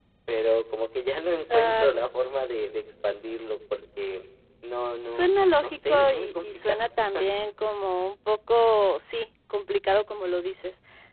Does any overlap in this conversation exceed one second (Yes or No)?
Yes